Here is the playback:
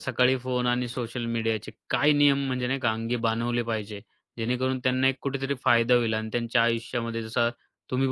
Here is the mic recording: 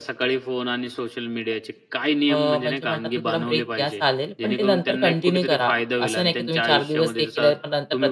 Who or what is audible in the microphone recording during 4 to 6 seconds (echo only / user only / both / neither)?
both